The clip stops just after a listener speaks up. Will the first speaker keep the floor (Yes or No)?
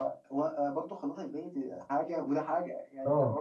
Yes